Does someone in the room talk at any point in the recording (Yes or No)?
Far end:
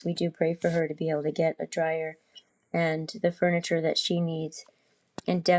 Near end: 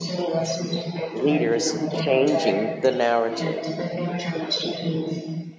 Yes